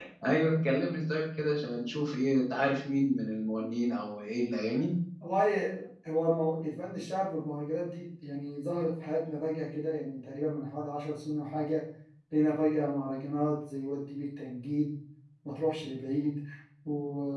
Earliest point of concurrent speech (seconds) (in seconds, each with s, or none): none